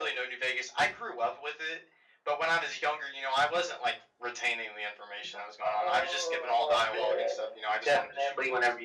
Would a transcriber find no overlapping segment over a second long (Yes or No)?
No